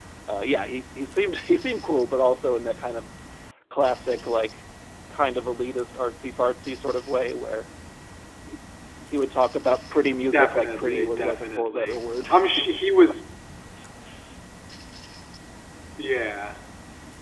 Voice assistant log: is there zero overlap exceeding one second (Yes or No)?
No